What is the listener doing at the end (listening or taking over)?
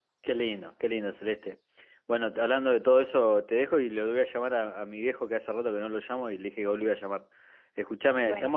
listening